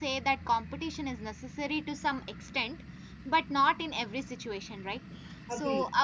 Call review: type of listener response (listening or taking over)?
listening